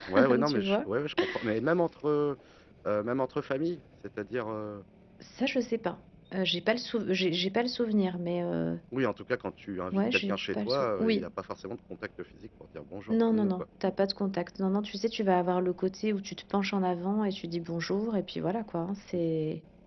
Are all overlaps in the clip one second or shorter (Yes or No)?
No